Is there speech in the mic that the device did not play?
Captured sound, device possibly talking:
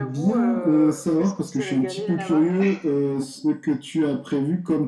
Yes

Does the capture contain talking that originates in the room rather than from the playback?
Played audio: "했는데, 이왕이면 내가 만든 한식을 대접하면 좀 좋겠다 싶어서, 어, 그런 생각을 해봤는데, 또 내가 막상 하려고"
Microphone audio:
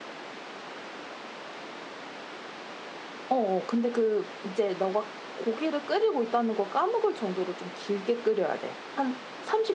Yes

